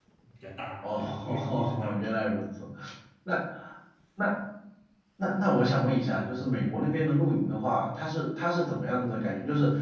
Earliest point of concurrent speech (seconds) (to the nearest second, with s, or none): 1 s